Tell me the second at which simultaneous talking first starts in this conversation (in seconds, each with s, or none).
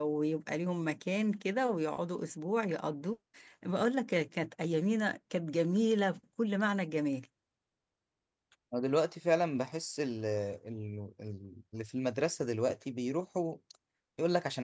none